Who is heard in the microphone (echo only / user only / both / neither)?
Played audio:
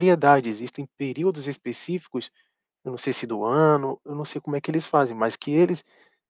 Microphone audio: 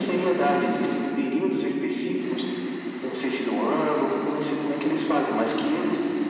echo only